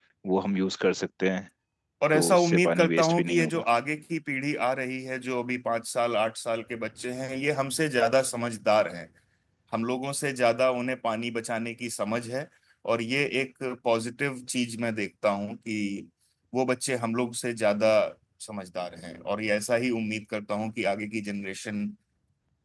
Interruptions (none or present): present